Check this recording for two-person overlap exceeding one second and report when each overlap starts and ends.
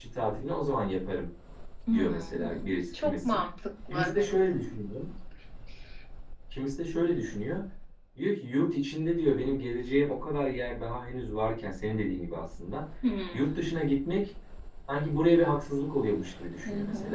1.9-3.4

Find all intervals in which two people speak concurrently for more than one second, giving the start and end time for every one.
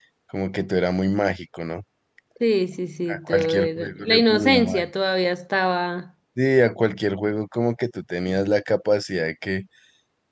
3.1-4.8

